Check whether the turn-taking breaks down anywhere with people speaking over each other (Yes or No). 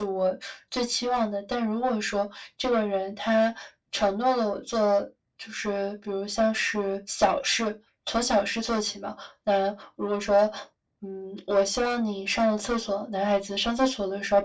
No